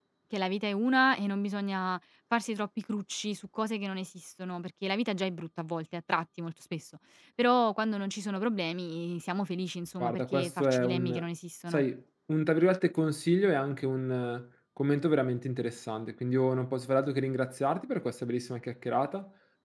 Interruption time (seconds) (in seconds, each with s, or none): 10.0 s